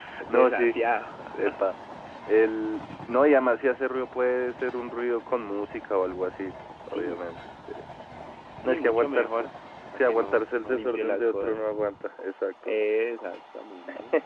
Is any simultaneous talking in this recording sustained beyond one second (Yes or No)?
Yes